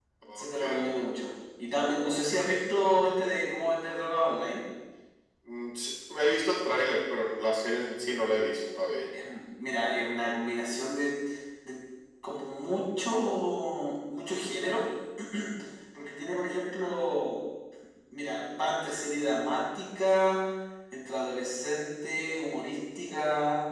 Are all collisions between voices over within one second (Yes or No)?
Yes